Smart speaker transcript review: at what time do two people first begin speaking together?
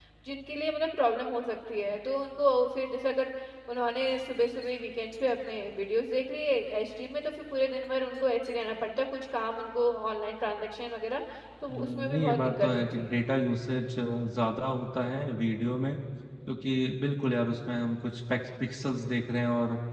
12 s

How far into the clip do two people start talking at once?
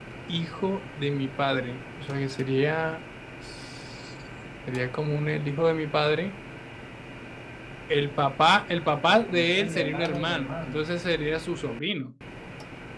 9 s

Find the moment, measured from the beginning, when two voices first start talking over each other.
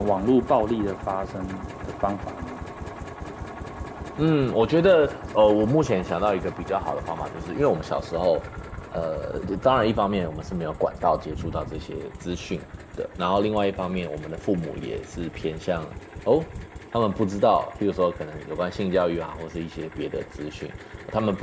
none

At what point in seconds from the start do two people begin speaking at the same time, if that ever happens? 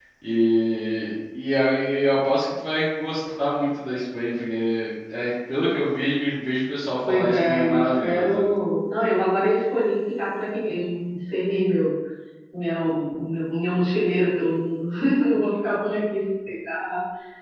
7 s

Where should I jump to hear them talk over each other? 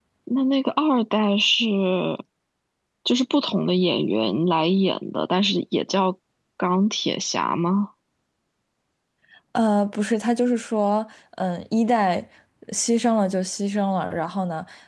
none

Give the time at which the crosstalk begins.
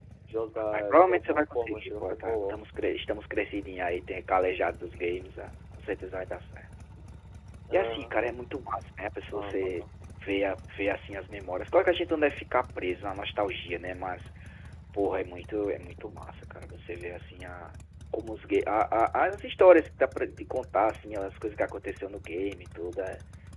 1 s

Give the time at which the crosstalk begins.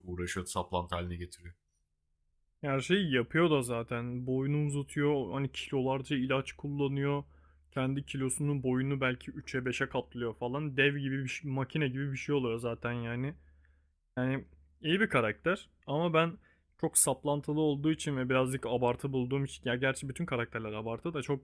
none

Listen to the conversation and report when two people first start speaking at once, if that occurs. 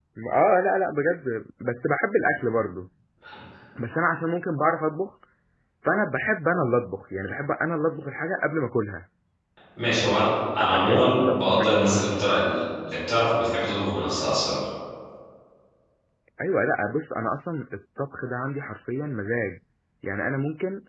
11 s

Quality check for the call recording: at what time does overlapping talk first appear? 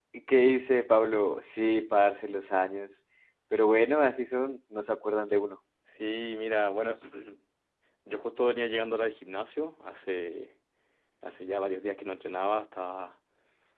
none

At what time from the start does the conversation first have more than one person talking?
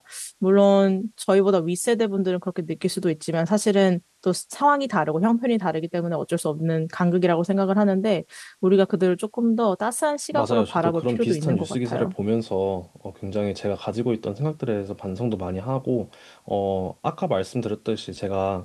10 s

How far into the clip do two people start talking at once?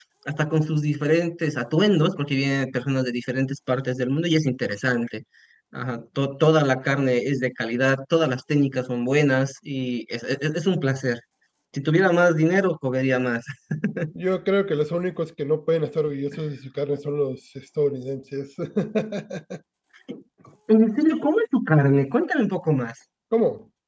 none

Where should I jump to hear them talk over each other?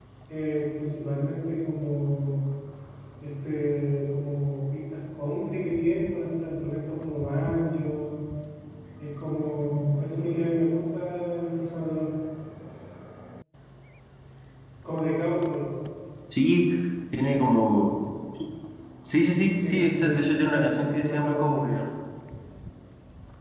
20 s

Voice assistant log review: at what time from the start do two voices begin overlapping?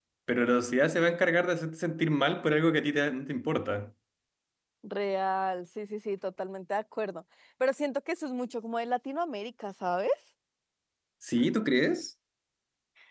none

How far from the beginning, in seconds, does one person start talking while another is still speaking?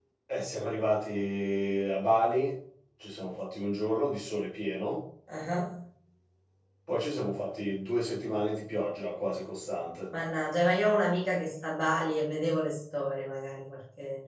none

